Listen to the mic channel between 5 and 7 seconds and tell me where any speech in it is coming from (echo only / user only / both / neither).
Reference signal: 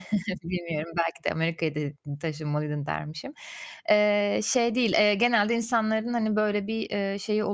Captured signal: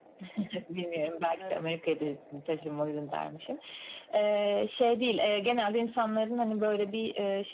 echo only